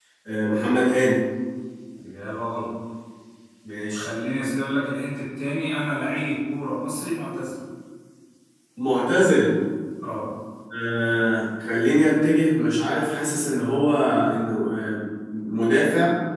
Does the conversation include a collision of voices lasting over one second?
No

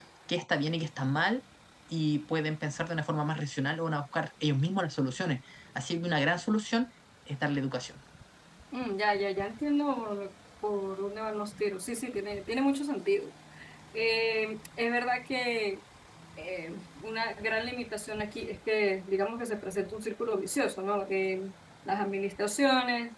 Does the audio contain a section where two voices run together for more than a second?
No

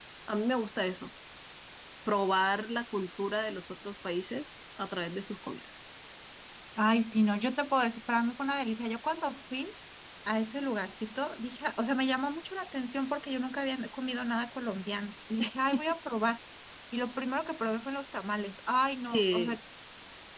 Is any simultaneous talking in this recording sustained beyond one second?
No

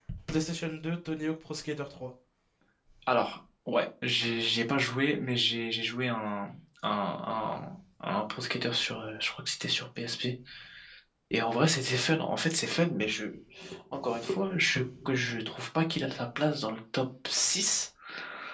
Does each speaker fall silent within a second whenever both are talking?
Yes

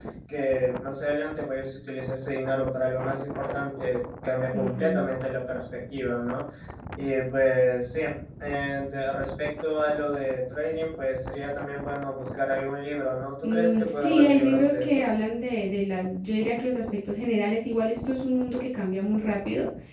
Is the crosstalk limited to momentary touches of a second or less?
No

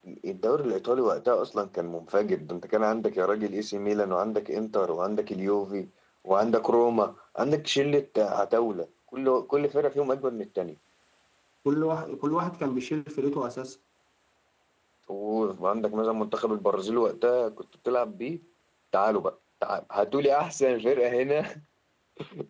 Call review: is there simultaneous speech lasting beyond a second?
No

